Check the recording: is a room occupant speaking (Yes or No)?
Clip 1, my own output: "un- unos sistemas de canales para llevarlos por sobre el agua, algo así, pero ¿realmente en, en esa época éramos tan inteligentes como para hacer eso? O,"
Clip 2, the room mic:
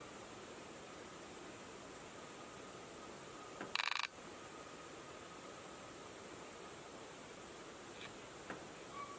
No